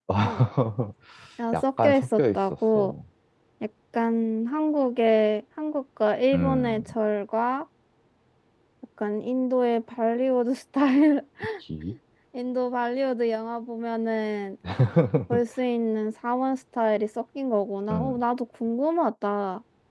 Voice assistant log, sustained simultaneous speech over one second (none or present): present